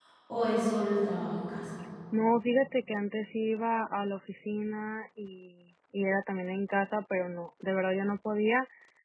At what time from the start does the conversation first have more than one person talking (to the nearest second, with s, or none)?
none